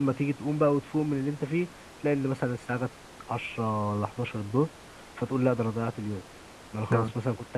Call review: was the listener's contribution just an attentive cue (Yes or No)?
Yes